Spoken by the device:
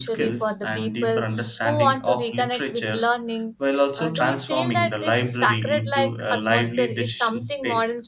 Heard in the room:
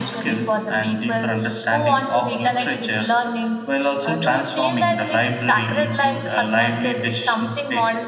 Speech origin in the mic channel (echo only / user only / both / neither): echo only